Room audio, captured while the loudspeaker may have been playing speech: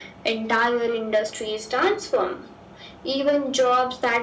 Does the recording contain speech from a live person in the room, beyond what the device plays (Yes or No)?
No